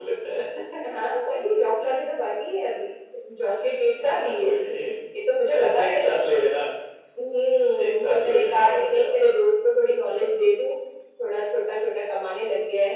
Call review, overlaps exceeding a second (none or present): present